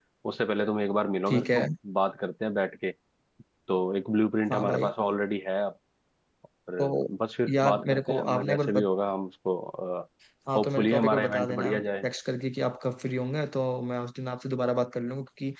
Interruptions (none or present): present